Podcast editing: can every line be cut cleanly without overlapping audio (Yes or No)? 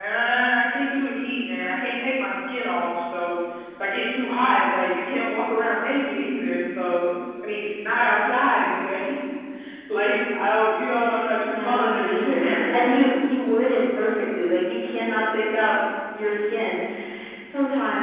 No